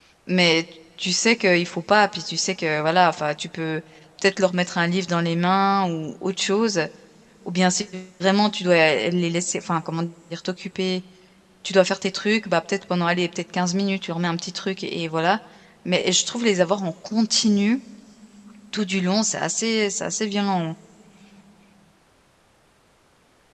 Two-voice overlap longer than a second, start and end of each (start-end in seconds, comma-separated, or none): none